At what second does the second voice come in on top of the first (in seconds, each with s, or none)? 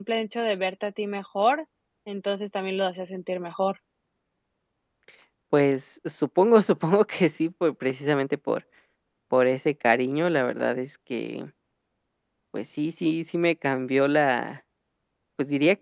none